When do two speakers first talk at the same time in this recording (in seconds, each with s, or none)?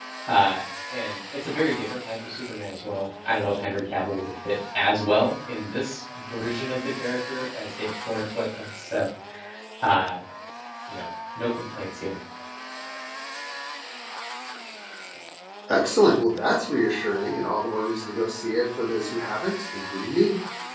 none